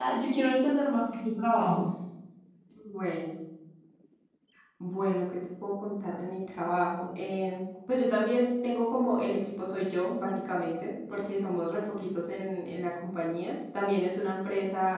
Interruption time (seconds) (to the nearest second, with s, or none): none